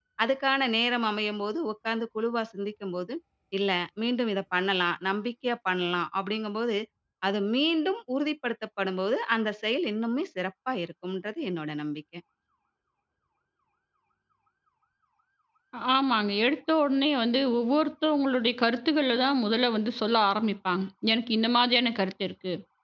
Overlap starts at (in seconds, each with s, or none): none